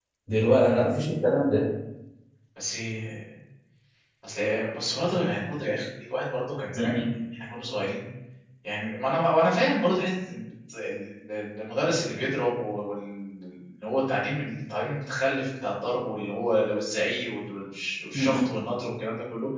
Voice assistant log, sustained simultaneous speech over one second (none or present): none